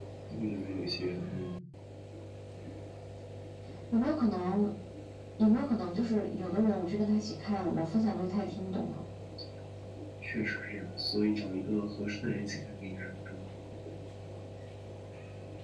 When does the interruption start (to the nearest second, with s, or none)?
none